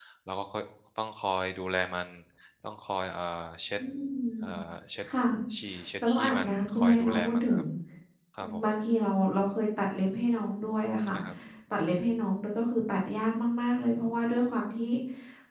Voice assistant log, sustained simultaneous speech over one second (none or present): present